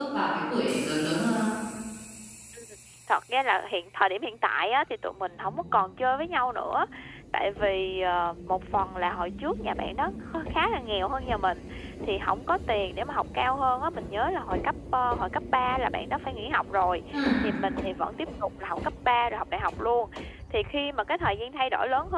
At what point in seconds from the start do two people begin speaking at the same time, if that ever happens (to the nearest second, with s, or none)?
none